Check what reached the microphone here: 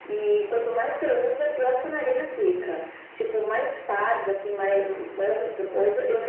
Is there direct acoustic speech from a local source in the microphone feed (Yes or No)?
No